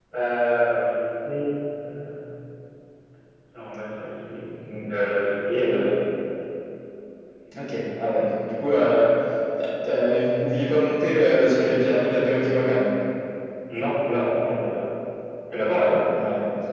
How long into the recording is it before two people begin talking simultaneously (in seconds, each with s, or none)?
none